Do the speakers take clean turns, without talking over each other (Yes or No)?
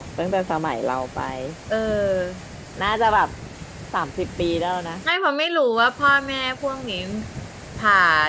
Yes